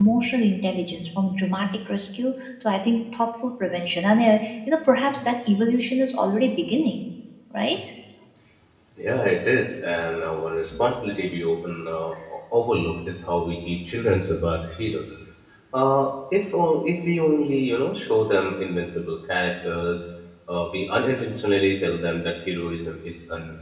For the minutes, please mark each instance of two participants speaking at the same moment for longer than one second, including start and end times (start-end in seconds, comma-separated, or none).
none